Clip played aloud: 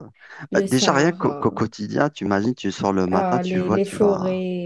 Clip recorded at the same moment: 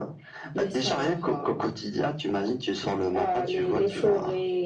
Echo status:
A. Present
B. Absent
A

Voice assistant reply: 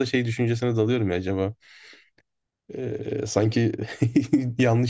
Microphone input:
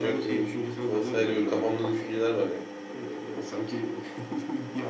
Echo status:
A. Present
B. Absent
A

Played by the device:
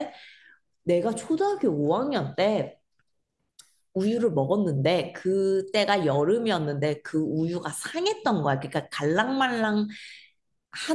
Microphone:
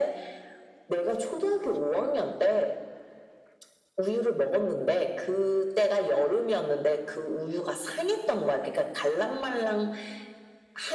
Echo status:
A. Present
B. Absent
A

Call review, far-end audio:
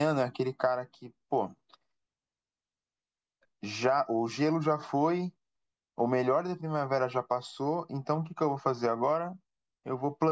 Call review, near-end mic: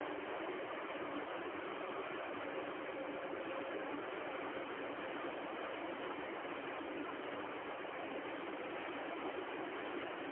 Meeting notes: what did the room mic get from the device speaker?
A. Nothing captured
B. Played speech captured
A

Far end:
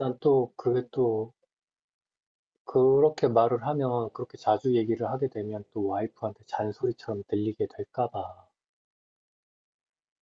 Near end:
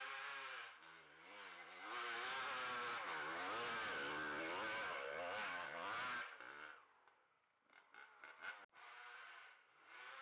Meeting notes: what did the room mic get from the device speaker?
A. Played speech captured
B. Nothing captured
B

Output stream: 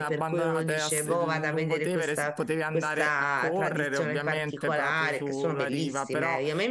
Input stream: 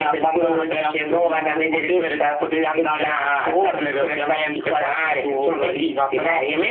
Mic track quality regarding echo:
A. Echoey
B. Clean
A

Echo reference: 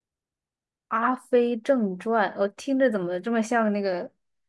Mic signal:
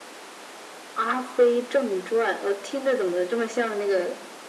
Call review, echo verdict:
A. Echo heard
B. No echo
A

